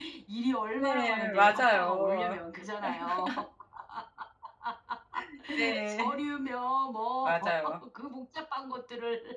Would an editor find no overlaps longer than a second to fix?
No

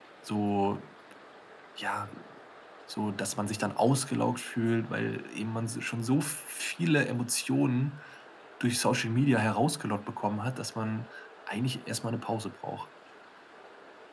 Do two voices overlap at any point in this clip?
No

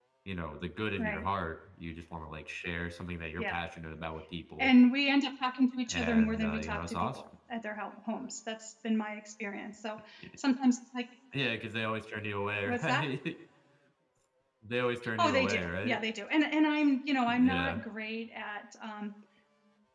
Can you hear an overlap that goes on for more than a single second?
Yes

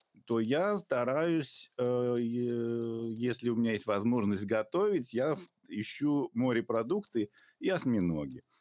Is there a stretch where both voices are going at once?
No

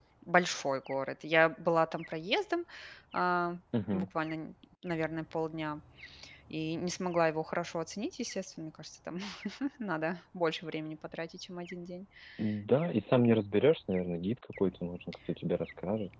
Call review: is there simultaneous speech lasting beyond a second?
No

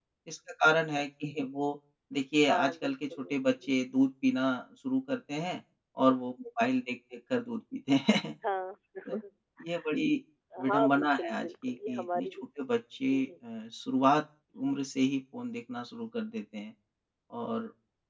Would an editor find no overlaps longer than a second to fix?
No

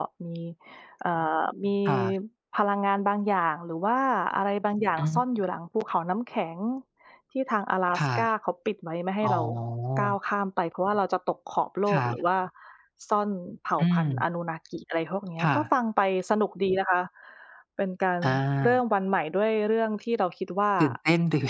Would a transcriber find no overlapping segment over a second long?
Yes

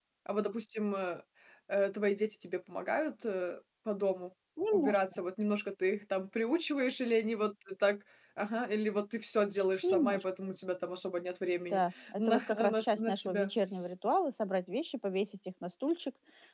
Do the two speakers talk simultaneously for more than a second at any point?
Yes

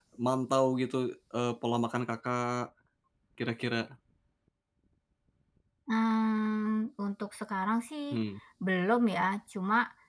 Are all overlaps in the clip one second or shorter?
Yes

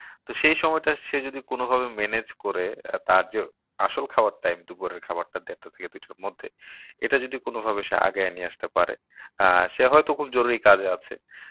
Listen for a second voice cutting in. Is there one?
No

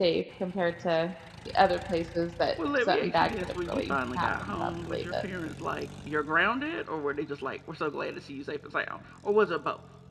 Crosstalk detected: Yes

